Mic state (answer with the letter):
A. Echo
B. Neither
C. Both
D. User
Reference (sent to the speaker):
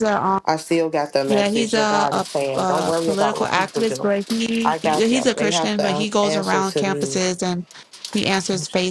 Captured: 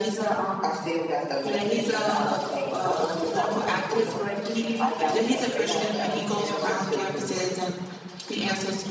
C